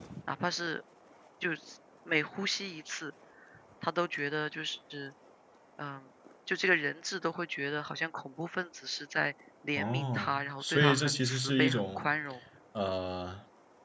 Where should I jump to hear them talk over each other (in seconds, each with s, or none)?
9.8 s